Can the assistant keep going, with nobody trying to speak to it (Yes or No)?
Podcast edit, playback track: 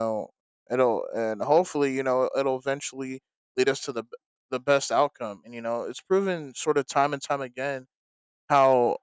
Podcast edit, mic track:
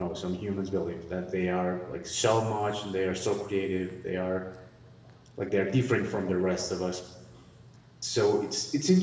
No